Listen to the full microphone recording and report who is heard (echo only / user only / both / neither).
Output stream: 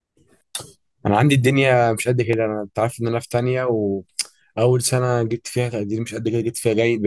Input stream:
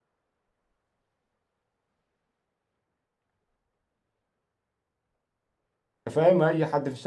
user only